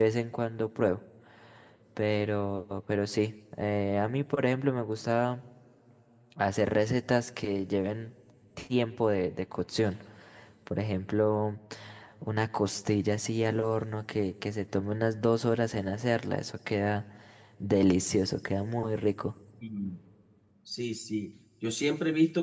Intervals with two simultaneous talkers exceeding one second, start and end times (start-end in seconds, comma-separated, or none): none